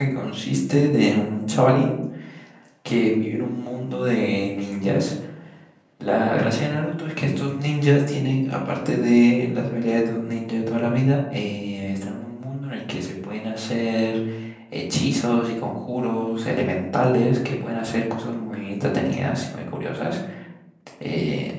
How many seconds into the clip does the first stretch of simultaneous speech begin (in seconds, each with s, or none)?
none